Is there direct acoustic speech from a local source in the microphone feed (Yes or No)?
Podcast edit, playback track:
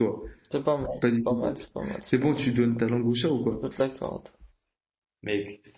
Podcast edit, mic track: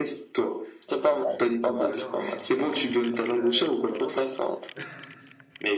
Yes